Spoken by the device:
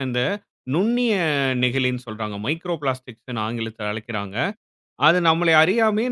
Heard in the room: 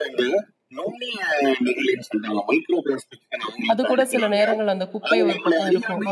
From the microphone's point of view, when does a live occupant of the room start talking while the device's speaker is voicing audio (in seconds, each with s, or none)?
3.7 s